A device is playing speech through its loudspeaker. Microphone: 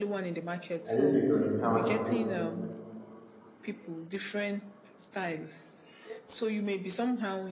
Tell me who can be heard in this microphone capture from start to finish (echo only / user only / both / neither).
both